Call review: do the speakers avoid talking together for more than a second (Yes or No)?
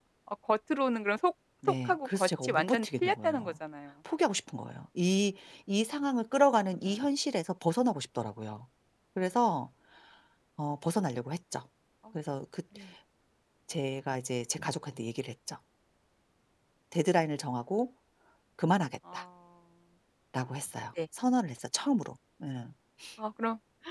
No